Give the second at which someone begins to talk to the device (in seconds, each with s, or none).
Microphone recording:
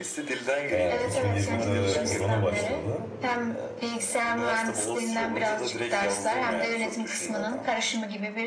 0.7 s